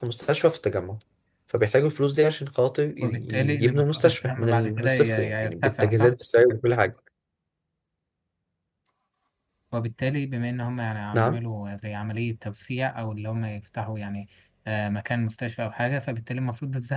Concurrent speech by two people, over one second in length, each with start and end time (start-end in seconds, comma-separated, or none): 3.0-6.1